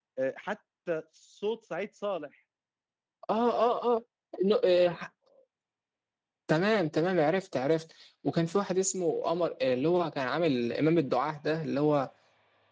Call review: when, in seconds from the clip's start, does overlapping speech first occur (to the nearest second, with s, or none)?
none